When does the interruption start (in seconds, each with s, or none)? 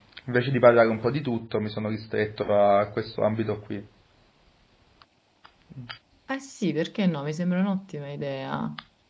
none